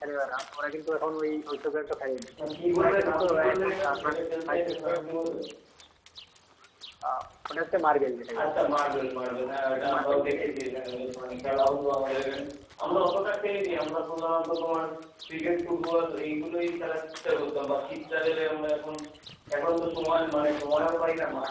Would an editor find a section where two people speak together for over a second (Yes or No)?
Yes